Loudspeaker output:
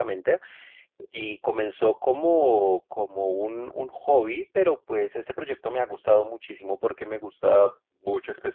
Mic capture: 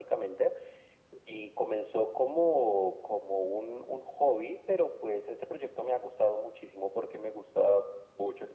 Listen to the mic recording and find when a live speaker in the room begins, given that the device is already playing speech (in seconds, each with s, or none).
none